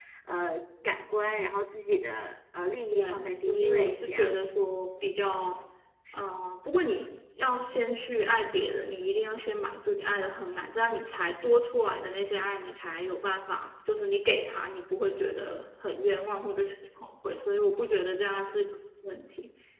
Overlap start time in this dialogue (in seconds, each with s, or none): 2.9 s